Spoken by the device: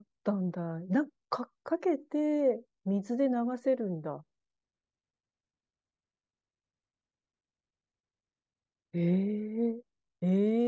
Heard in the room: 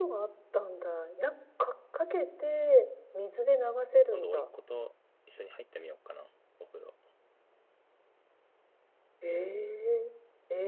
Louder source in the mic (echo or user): echo